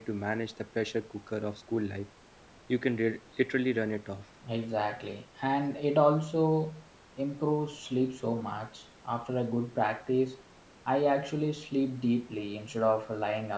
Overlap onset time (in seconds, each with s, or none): none